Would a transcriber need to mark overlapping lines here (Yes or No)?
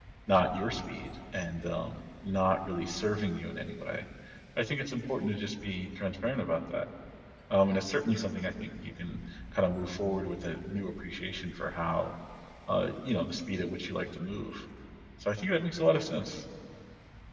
No